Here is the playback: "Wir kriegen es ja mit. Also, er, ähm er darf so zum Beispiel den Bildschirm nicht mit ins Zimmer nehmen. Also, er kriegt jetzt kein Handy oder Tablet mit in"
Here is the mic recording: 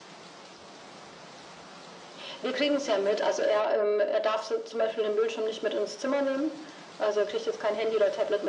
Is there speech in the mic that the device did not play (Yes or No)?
No